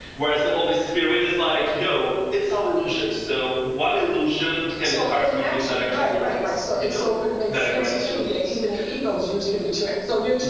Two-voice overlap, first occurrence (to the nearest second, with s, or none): 5 s